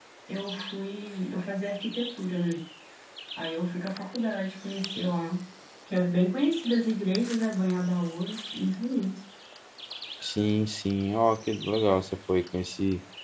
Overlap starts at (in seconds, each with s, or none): none